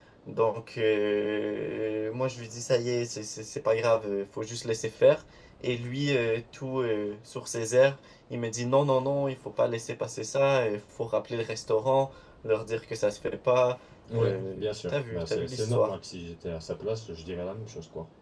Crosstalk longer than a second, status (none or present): present